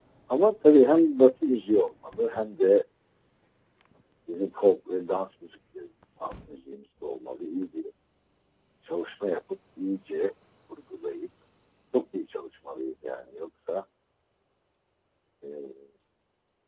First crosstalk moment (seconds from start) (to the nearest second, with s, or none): none